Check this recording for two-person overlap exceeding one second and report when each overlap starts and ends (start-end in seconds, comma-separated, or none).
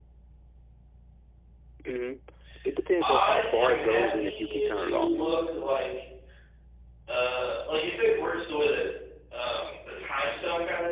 3.0-5.1